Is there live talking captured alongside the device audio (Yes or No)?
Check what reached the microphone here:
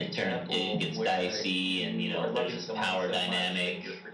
No